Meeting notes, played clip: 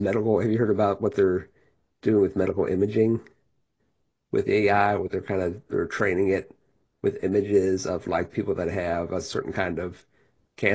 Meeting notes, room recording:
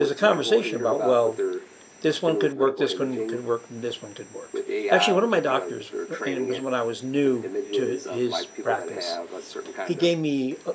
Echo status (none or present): present